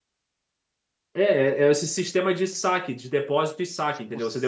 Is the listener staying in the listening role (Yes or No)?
No